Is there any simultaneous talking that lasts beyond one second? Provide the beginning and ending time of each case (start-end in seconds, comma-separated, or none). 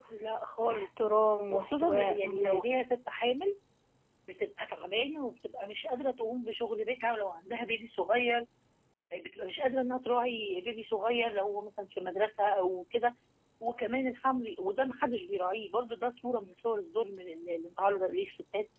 1.5-2.7